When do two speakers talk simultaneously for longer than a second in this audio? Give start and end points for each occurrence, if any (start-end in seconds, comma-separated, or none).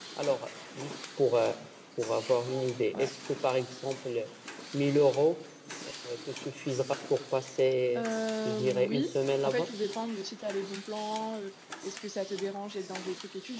8.4-9.7